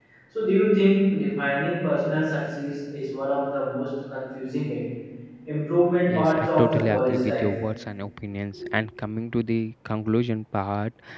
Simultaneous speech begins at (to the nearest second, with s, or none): 6 s